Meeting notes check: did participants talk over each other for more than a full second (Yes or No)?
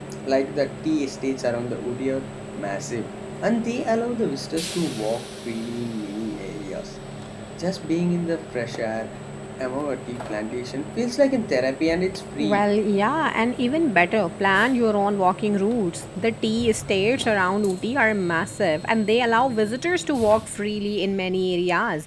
No